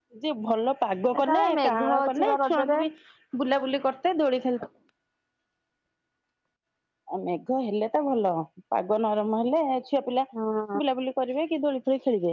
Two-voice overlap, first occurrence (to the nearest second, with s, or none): 1 s